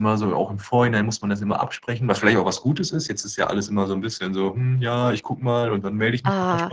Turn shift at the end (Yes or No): Yes